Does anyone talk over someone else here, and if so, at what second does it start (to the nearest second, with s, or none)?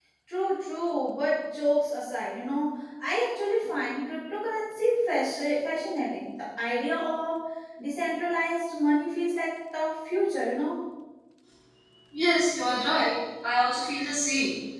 none